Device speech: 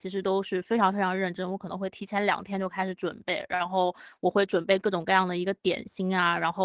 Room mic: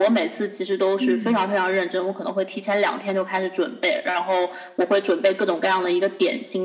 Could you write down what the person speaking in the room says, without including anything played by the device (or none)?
嗯